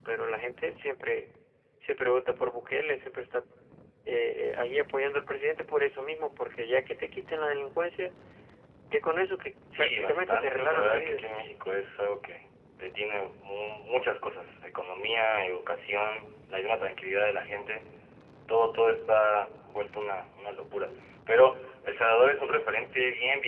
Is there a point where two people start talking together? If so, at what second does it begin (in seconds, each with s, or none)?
9.8 s